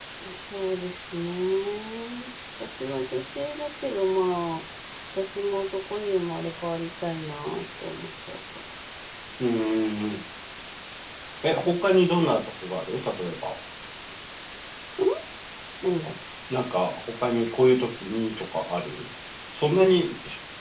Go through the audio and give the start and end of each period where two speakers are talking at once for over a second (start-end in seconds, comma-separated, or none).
none